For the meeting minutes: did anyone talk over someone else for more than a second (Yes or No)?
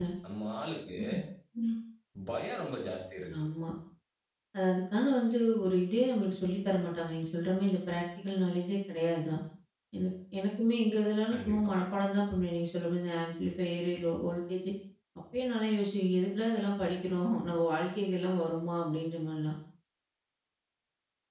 No